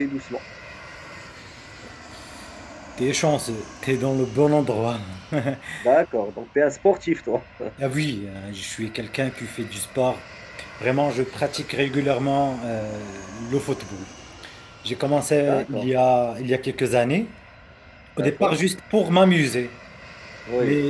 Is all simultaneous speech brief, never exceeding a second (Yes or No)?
Yes